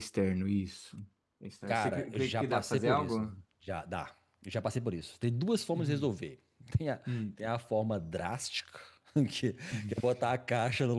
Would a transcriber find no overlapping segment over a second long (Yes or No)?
No